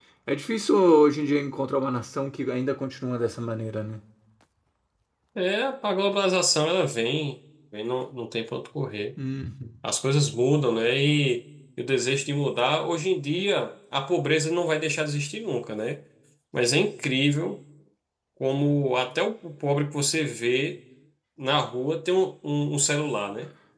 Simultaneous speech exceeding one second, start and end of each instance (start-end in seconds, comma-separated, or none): none